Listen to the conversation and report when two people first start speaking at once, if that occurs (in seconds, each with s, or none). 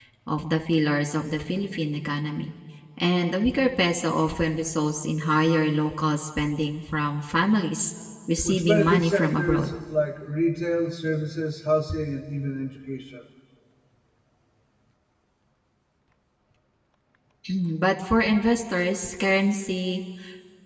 8.4 s